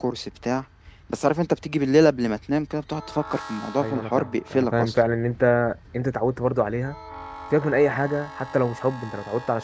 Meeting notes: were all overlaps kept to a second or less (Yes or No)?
No